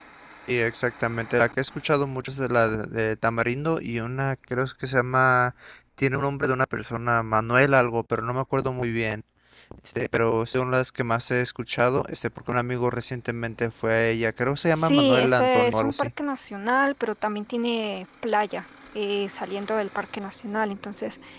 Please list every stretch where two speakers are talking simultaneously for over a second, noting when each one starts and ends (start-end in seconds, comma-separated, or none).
14.8-16.1